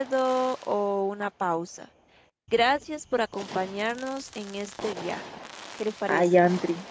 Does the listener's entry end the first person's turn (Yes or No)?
Yes